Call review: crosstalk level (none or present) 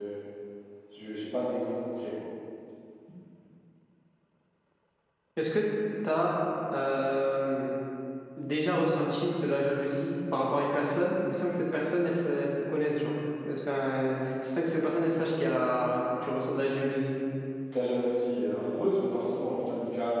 none